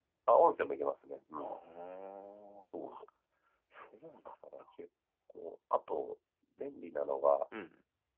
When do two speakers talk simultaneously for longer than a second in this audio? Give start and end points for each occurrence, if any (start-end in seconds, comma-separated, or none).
none